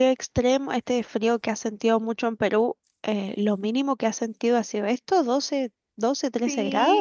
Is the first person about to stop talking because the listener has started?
Yes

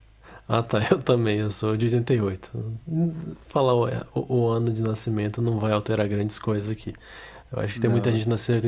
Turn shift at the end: No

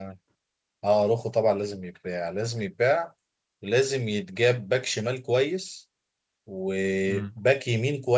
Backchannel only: Yes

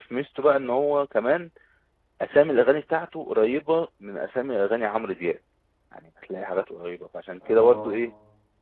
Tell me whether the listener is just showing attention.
Yes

